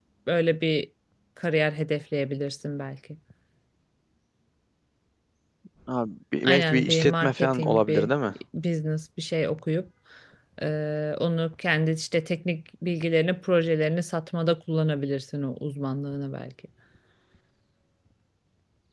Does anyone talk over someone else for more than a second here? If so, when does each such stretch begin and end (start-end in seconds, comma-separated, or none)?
6.4-8.1